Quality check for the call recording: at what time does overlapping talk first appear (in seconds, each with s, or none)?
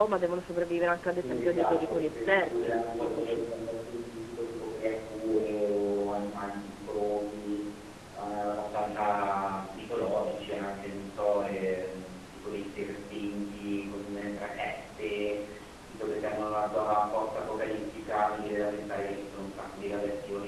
1.2 s